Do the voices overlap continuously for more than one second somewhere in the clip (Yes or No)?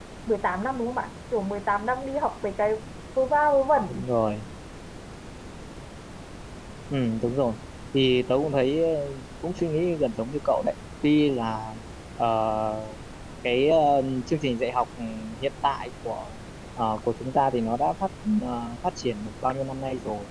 No